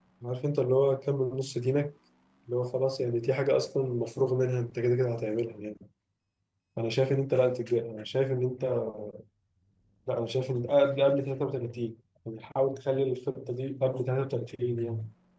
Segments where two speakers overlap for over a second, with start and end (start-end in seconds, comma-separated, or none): none